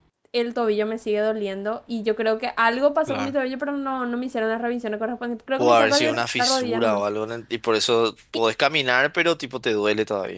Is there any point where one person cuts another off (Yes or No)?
Yes